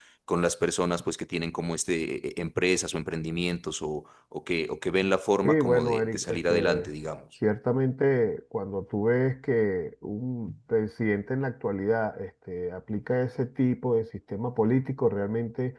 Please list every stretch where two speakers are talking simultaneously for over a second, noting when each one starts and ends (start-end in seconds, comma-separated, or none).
5.4-6.9